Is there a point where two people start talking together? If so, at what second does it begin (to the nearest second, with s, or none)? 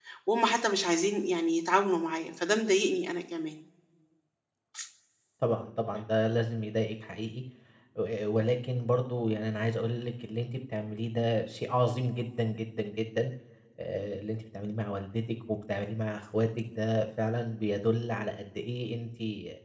none